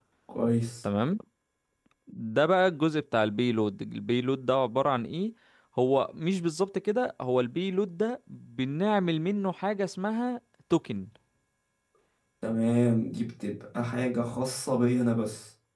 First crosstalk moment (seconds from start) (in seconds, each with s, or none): none